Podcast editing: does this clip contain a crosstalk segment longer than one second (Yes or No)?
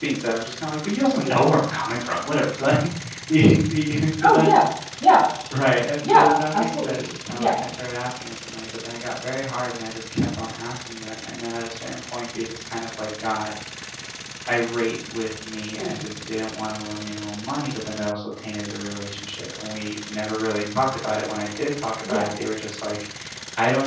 Yes